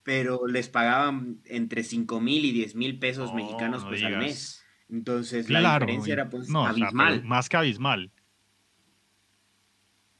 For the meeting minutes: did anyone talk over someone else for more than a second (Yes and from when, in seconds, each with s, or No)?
Yes, from 3.2 s